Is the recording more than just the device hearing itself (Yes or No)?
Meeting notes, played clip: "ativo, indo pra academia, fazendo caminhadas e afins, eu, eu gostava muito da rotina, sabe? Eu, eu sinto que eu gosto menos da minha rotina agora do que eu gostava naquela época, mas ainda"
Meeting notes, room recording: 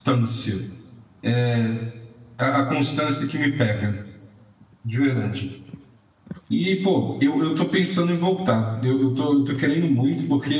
Yes